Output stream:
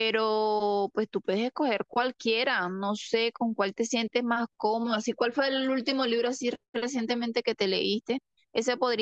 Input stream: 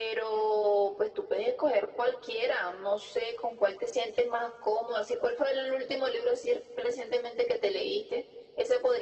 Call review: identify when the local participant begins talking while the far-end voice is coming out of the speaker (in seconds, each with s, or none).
none